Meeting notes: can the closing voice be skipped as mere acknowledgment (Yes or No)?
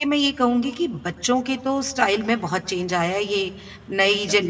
Yes